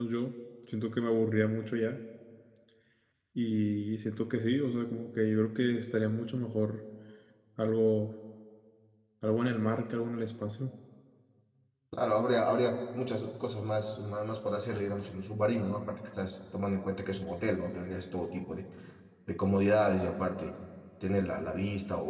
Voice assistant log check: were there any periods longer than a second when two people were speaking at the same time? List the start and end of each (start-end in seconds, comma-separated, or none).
none